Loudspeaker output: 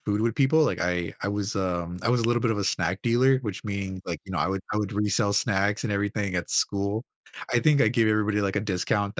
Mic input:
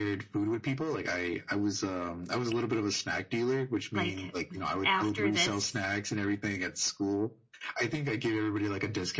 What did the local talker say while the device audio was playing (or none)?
like after this,